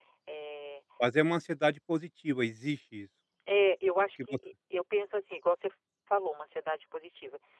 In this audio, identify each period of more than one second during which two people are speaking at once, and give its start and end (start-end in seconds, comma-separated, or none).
none